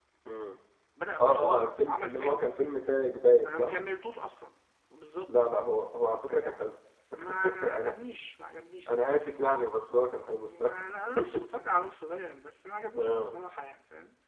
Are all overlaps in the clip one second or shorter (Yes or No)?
No